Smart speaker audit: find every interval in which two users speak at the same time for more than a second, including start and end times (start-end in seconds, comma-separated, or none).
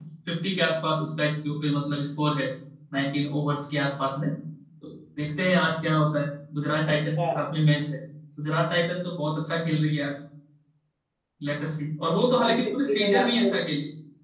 12.4-13.6